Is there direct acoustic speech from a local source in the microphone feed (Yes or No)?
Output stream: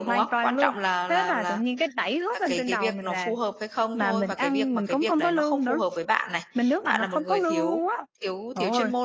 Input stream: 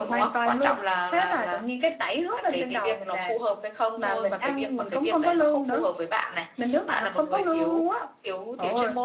No